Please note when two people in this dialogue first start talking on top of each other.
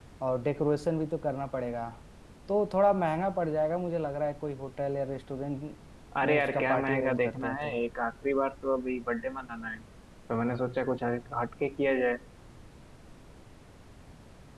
6.2 s

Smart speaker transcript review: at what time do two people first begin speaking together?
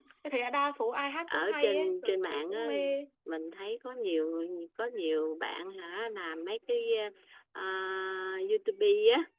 1.3 s

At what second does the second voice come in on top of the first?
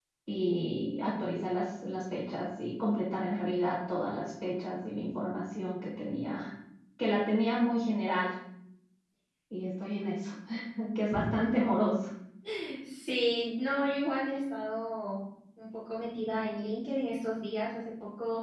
none

